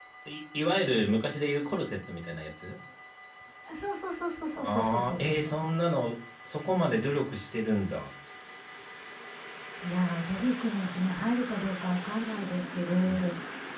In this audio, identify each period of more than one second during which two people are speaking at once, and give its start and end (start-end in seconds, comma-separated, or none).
4.5-5.8